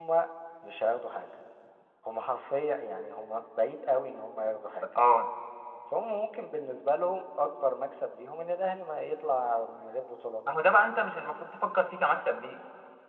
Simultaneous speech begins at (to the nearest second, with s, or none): none